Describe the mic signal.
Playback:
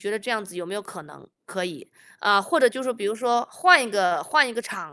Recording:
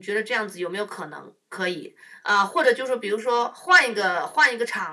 echo only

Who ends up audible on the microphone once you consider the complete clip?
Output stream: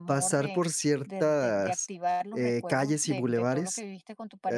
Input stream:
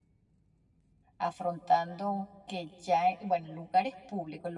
user only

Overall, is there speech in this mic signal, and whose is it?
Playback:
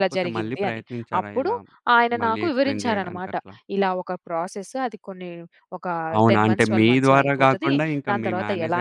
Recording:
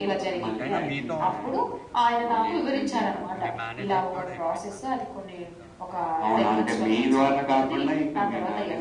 both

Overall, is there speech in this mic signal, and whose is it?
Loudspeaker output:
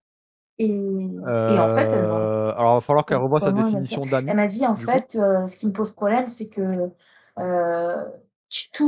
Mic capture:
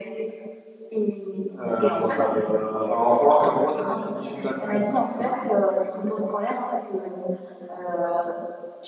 echo only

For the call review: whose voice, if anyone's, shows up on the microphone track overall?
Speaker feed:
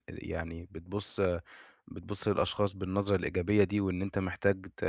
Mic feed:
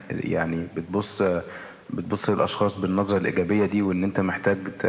echo only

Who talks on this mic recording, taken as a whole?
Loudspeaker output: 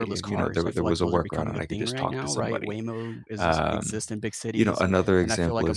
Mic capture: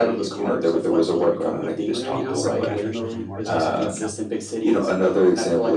both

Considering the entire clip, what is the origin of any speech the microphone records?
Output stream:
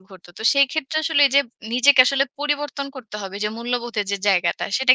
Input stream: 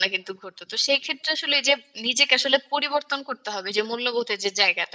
echo only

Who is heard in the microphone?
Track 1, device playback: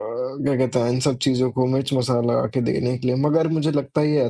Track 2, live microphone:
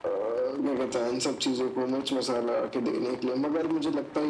echo only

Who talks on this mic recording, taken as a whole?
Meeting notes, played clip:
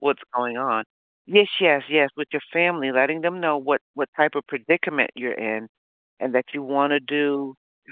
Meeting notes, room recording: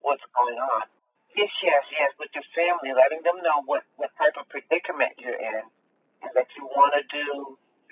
echo only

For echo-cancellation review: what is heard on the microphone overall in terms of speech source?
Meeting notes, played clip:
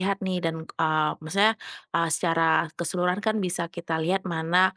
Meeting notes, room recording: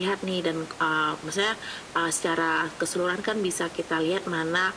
echo only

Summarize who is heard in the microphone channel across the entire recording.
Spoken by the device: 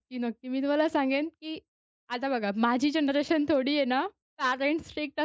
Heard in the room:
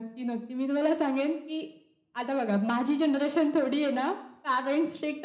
echo only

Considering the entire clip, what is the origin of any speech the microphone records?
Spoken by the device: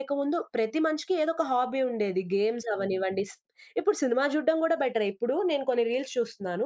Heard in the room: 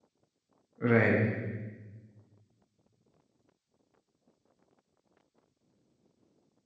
user only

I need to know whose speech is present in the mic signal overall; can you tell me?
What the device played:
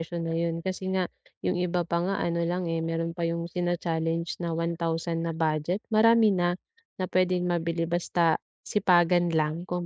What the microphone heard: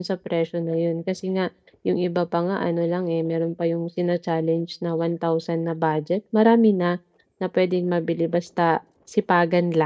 echo only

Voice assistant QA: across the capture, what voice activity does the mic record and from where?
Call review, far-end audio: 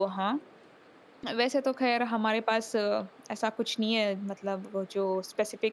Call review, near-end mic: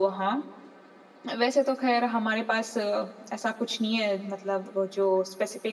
echo only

